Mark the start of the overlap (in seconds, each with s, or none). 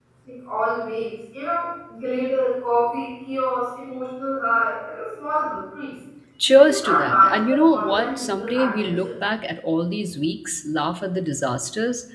6.5 s